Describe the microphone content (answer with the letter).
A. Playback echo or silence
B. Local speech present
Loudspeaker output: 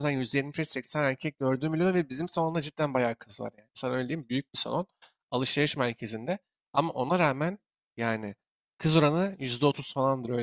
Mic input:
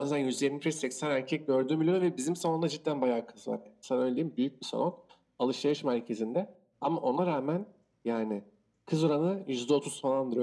A